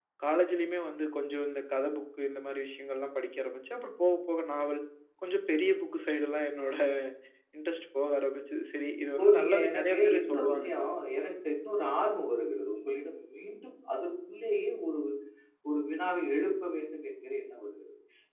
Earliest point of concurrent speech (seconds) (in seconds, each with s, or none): 9.2 s